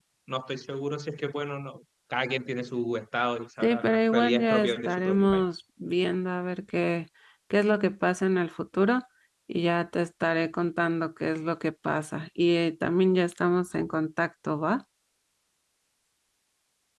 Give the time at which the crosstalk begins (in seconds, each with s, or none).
3.6 s